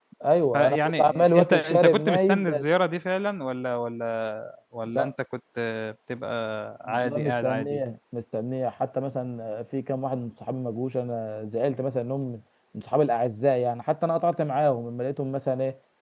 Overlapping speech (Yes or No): Yes